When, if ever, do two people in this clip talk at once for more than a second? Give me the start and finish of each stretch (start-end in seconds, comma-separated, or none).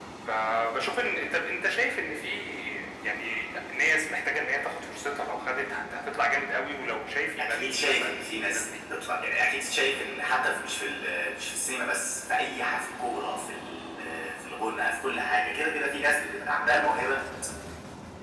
7.4-8.6